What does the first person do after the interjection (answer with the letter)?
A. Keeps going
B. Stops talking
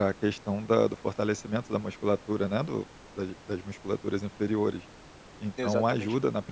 A